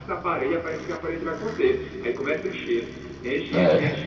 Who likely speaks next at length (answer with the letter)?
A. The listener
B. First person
B